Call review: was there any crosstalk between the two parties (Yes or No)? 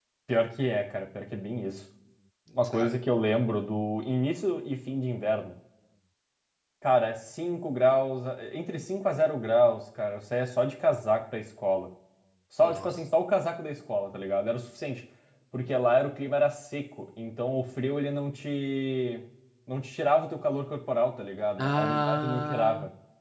Yes